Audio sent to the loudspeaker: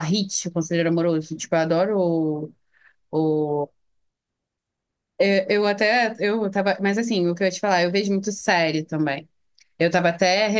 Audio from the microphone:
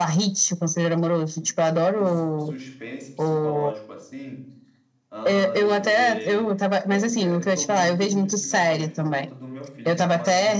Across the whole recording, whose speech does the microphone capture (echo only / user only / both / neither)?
both